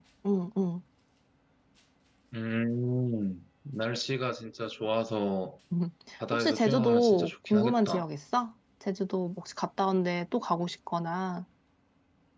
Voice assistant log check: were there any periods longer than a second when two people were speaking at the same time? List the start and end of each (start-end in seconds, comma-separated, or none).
6.3-8.1